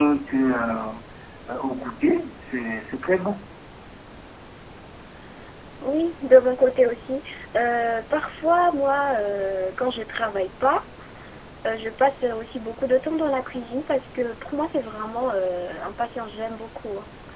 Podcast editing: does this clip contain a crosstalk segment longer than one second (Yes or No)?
No